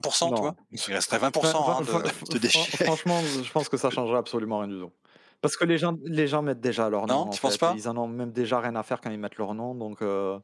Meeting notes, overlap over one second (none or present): present